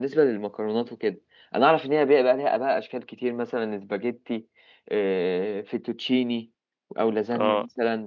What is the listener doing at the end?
listening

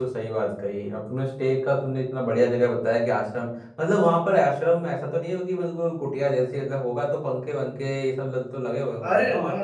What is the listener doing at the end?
taking over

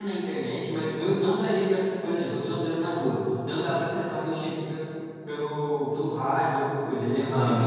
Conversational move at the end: listening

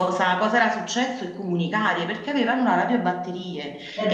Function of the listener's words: listening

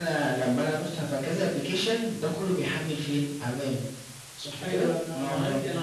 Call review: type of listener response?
taking over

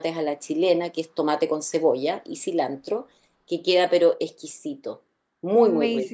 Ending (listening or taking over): taking over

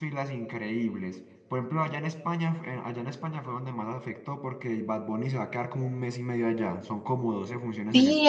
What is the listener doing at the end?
taking over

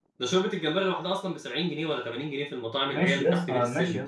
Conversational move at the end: taking over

